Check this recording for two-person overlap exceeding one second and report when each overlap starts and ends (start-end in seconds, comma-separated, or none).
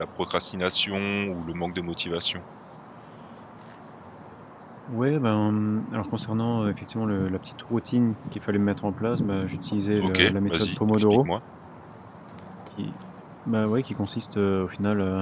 10.0-11.3